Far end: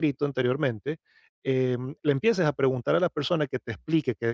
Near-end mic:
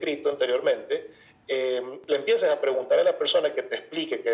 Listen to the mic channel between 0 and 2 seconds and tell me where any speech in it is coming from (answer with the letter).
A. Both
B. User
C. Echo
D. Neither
C